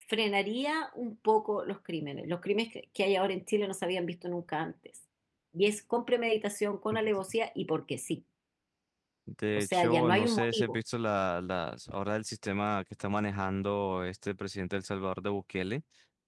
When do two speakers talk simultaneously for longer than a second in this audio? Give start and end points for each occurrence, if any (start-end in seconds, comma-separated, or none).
9.6-10.8